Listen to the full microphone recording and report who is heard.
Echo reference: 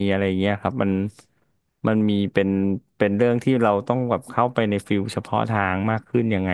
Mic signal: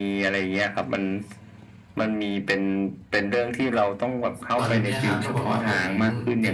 both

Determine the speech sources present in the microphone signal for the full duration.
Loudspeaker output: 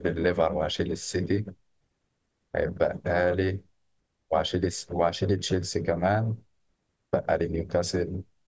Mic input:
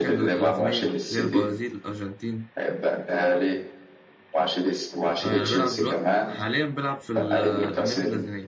both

